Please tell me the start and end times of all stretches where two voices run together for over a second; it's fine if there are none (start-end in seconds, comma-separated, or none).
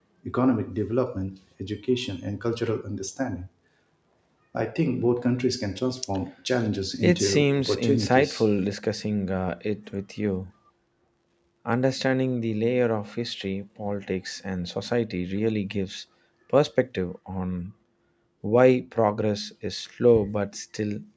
7.0-8.4